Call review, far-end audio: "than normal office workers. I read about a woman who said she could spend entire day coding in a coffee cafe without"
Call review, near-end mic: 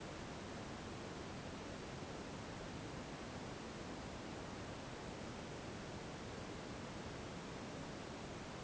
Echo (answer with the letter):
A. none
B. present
A